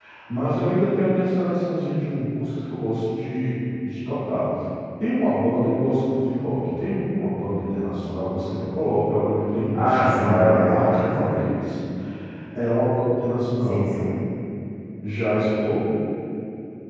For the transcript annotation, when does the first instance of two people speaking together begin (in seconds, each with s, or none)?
9.7 s